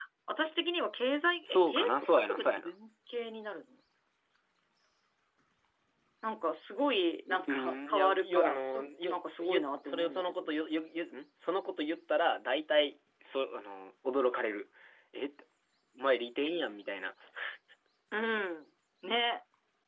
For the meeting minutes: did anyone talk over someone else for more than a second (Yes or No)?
Yes